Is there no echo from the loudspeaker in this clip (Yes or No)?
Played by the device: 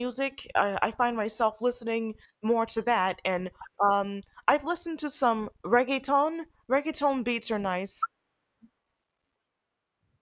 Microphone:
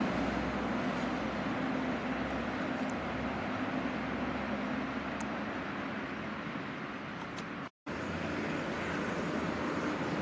Yes